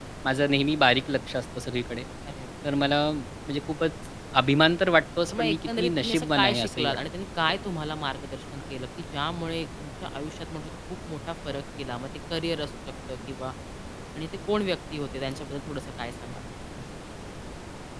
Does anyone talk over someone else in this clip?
Yes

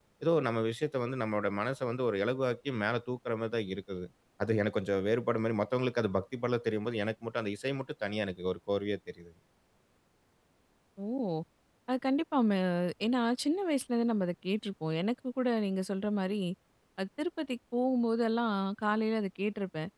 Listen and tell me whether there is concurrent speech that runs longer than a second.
No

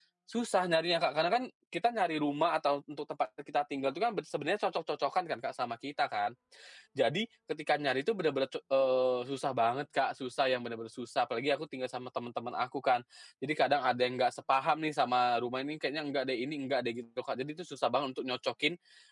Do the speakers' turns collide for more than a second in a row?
No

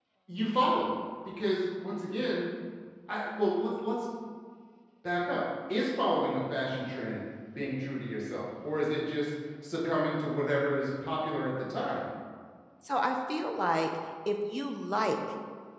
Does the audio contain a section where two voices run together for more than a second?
No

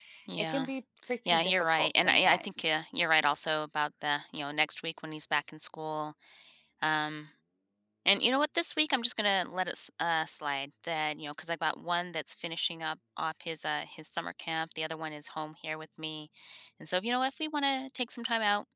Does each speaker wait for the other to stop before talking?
No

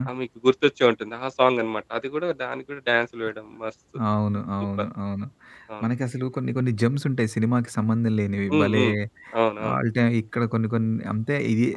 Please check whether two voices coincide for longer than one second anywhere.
No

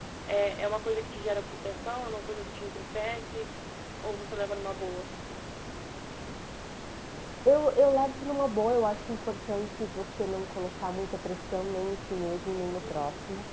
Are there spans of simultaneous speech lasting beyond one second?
No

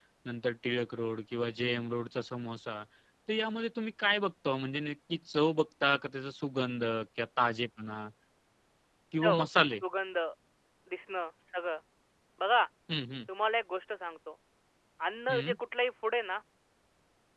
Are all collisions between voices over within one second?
Yes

